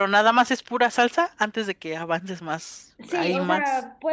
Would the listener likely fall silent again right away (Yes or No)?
No